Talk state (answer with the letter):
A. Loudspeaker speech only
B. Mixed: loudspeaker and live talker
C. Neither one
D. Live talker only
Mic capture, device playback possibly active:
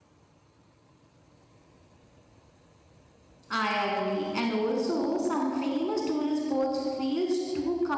D